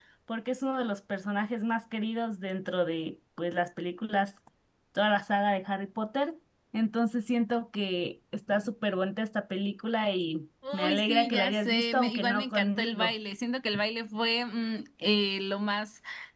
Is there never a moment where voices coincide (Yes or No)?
No